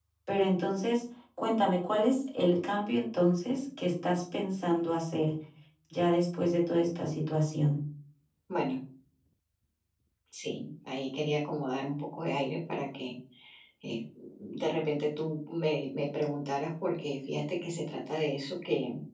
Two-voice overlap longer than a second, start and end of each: none

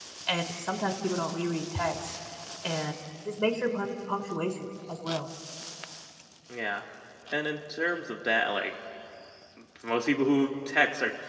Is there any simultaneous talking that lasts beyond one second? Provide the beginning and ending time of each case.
none

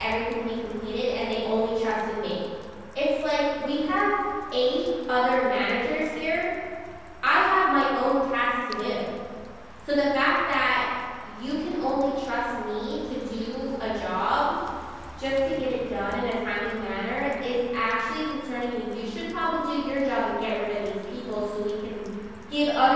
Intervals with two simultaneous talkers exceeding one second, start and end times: none

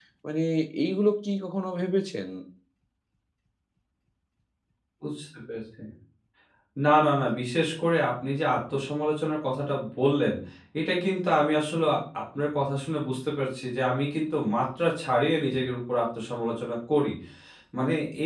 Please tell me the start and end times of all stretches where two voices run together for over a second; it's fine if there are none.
none

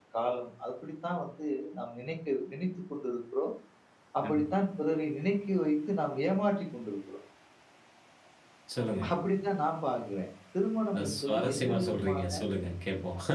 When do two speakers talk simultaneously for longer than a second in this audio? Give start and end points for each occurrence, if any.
11.0-12.2

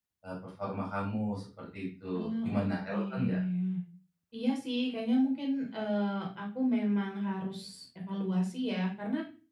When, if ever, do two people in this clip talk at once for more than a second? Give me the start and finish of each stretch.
2.1-3.4

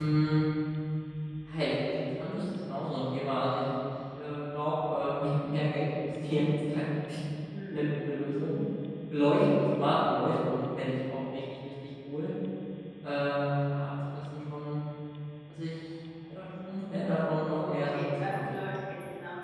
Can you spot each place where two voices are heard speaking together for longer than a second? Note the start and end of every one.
17.5-18.8

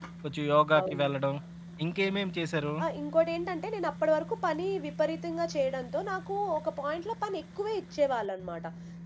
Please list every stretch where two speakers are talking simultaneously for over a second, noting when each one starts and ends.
none

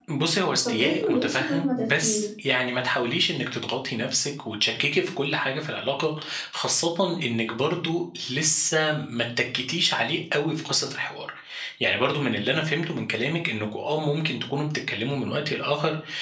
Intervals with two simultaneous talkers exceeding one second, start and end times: 0.7-2.2

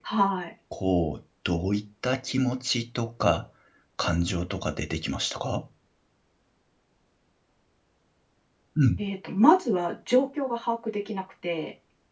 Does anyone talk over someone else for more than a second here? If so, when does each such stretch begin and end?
none

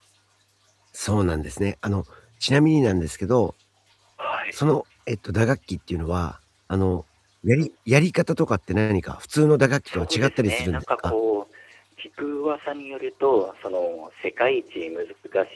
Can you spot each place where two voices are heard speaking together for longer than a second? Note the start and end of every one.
9.8-11.1

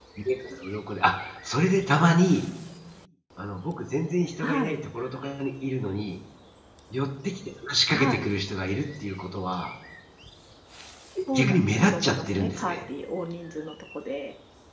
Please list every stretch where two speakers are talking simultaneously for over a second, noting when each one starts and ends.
11.3-12.8

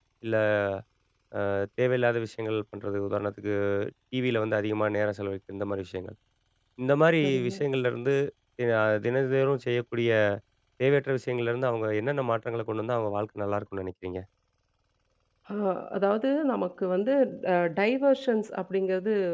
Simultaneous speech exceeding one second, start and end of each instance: none

